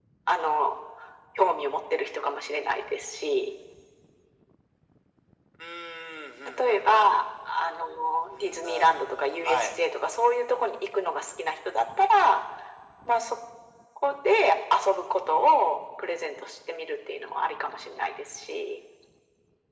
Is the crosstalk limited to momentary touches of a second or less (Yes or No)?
No